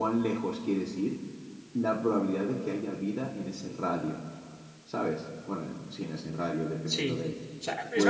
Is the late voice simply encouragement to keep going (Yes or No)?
No